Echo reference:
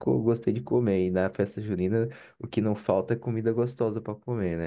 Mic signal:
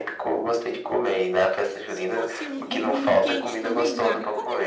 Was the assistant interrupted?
Yes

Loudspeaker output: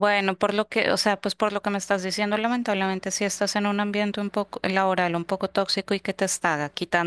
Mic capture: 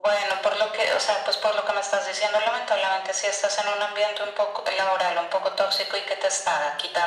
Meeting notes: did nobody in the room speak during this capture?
Yes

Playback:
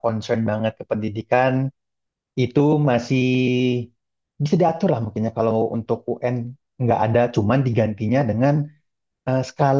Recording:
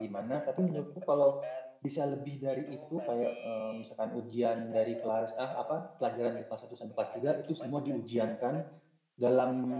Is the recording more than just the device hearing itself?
Yes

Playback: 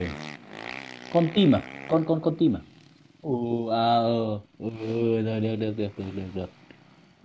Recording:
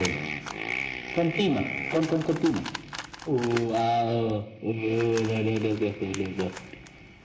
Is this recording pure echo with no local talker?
Yes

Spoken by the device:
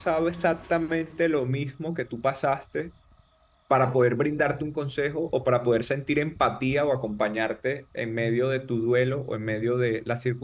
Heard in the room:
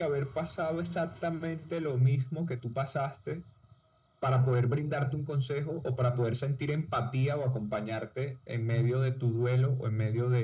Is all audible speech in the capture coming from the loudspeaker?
Yes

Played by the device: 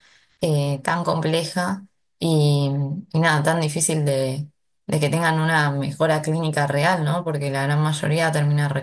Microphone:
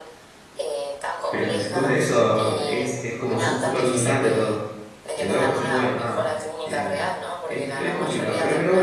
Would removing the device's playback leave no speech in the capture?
No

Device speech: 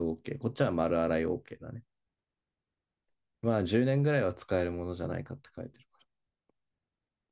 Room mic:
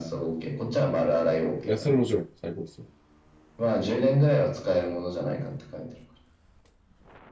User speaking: Yes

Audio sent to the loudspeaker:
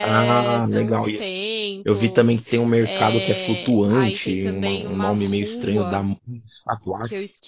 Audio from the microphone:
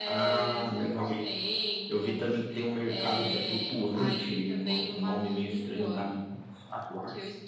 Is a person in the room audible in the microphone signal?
No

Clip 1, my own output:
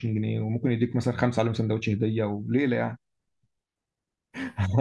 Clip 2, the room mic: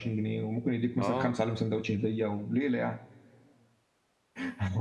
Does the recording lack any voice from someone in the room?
No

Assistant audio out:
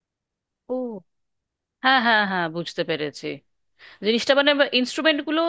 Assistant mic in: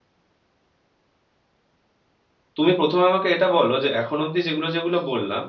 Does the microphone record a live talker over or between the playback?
Yes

